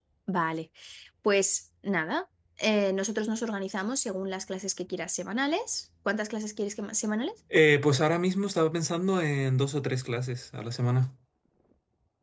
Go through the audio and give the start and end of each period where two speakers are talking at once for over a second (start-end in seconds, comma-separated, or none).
none